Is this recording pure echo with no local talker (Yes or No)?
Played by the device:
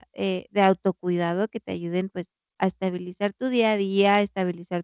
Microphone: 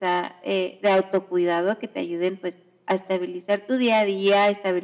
Yes